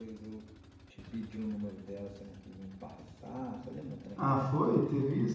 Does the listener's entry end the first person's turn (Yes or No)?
Yes